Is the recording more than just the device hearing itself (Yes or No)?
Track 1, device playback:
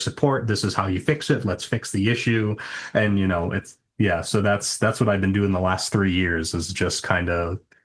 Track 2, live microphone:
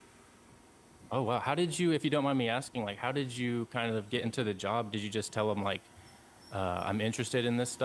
Yes